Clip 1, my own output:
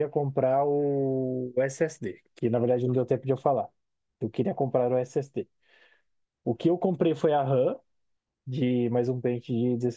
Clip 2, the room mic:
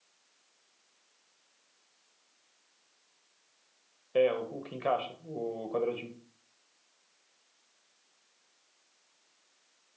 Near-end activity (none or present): present